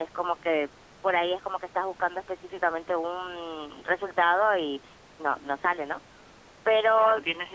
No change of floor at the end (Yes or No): No